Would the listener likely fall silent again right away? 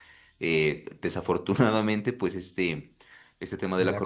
Yes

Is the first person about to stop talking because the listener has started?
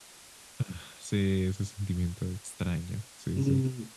Yes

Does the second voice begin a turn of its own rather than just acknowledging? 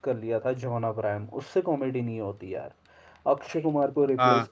No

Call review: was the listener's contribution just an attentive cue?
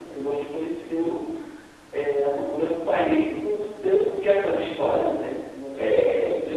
Yes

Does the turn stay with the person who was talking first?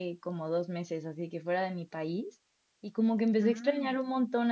Yes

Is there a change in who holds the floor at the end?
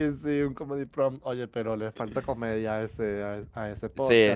Yes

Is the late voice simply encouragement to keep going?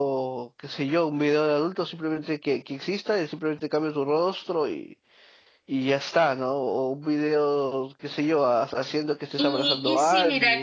No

